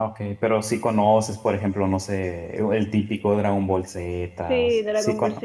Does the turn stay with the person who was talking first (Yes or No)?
No